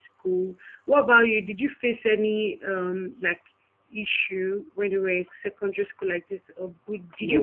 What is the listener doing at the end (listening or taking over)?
taking over